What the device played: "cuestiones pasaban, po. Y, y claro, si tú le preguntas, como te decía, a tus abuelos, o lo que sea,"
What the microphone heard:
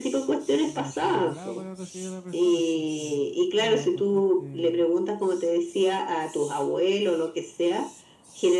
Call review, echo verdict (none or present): present